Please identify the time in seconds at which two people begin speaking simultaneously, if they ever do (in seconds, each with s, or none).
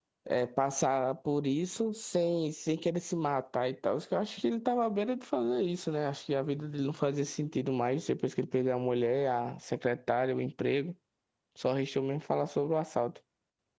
none